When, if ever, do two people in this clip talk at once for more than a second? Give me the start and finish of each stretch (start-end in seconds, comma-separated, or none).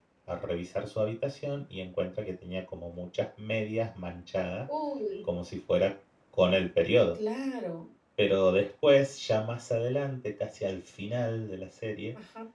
none